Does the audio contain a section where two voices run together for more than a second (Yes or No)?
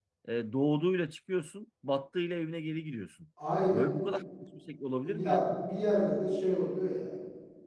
No